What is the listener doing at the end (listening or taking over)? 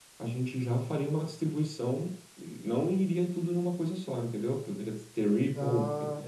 listening